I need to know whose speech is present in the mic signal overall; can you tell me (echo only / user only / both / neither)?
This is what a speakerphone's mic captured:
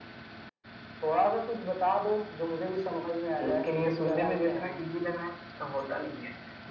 echo only